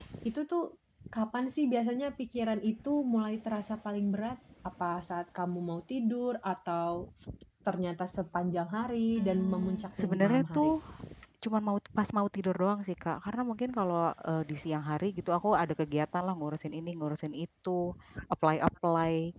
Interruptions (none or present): present